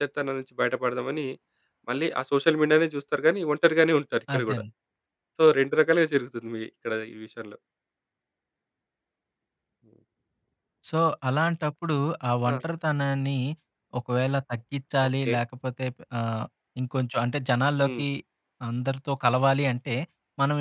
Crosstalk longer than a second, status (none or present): none